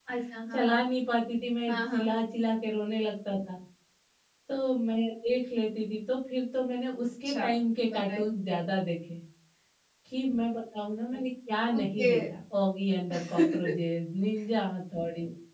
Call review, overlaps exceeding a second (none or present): none